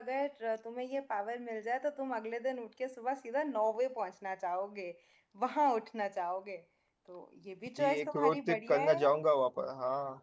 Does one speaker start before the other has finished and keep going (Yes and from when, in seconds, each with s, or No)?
Yes, from 7.8 s